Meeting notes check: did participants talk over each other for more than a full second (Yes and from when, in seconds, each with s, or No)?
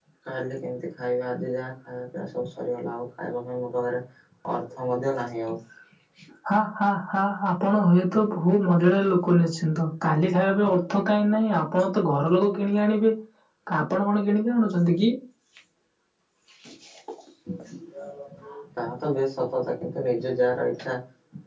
No